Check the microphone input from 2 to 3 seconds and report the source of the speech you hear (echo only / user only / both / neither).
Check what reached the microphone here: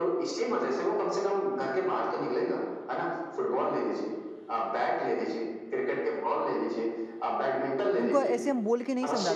echo only